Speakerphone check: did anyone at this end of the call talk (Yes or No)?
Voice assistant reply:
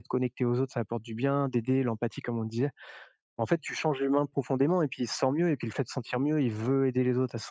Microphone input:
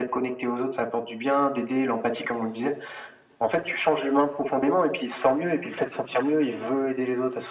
No